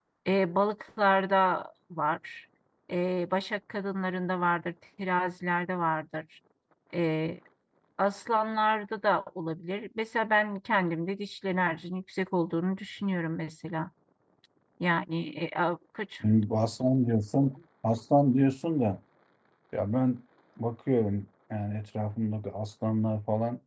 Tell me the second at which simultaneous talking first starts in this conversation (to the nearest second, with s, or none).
none